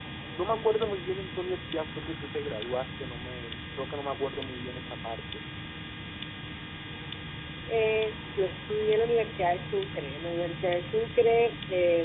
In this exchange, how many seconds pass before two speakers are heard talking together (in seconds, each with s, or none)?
none